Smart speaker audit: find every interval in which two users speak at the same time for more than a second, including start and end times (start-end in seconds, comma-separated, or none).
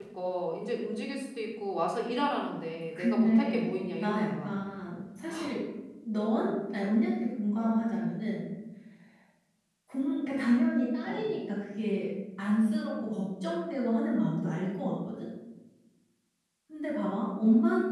2.9-4.5